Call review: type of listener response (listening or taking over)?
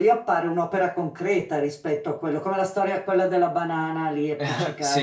listening